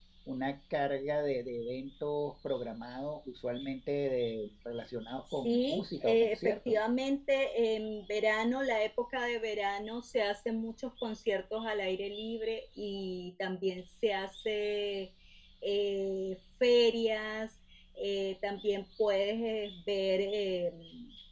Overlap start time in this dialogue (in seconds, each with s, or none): 5.4 s